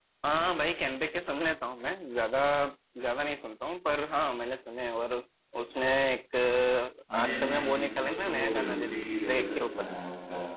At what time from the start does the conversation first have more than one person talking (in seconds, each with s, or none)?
7.1 s